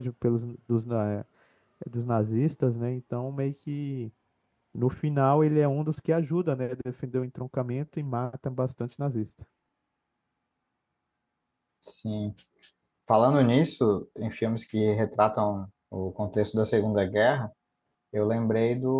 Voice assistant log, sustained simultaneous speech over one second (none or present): none